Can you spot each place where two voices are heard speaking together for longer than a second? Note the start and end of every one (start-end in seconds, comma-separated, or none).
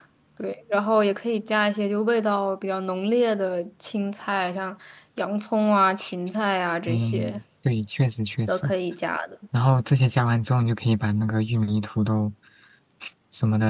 none